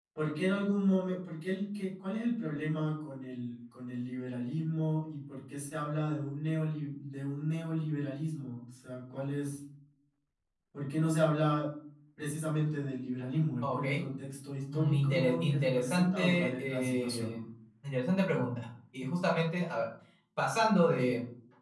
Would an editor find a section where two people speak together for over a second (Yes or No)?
Yes